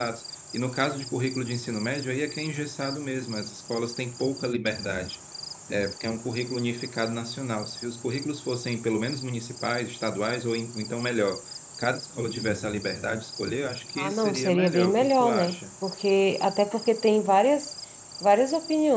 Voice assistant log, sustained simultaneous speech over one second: present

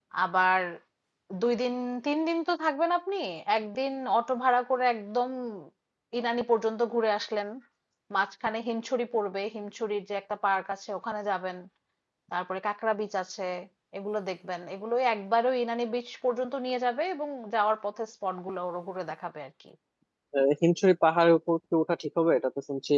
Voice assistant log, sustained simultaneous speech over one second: none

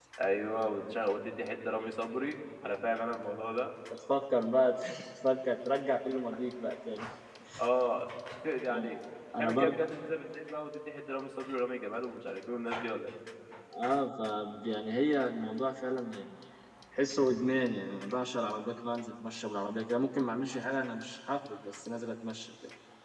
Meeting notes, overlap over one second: none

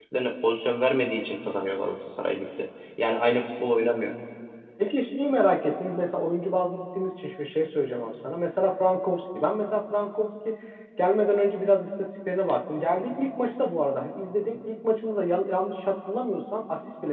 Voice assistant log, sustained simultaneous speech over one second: none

